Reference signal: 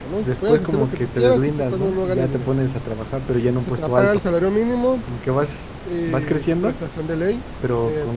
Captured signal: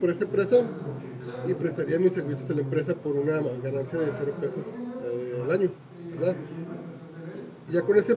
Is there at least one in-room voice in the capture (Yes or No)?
Yes